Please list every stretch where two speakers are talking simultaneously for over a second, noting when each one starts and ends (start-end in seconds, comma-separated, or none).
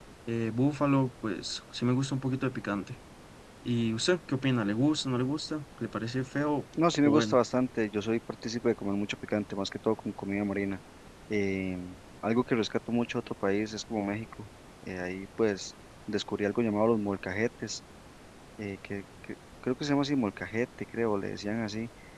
none